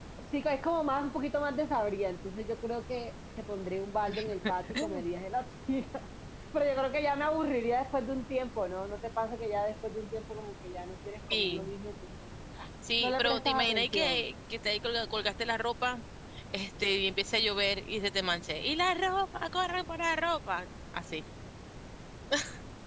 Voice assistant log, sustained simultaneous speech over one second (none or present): present